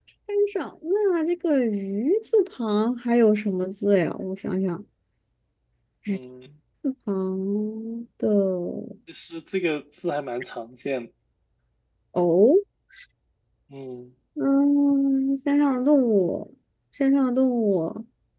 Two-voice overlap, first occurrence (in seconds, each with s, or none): none